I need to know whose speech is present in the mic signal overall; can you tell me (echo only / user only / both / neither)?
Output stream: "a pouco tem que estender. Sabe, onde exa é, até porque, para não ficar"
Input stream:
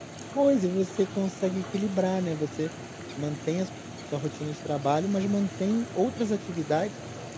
user only